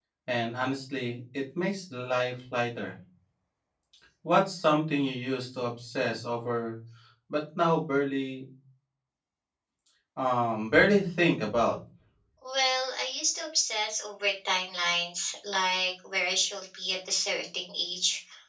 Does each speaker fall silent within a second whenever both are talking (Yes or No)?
Yes